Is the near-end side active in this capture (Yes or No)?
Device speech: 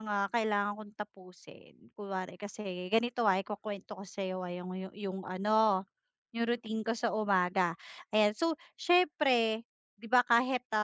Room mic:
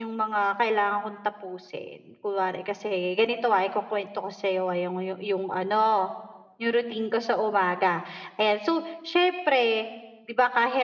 No